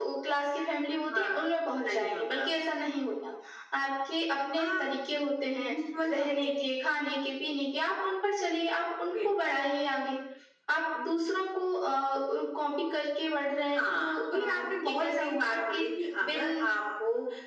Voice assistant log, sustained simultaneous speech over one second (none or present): present